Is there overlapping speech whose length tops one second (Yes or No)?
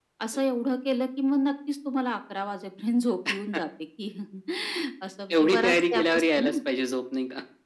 Yes